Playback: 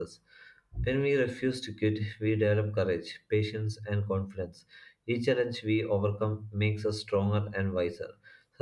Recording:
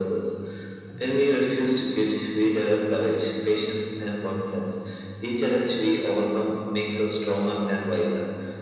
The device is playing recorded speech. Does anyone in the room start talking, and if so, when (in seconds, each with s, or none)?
none